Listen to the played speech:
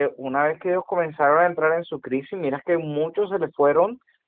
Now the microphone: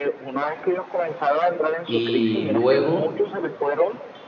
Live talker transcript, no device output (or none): y luego